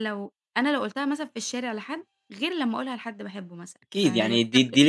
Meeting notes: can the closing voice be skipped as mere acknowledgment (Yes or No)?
No